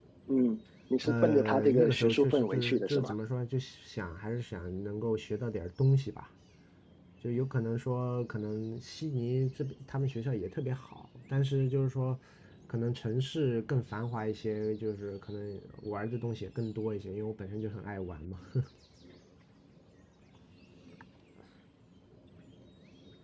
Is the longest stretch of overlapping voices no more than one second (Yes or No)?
No